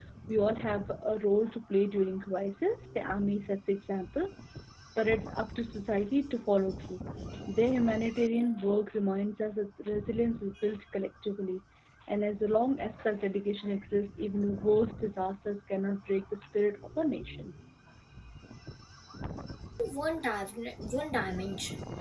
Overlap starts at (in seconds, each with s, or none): none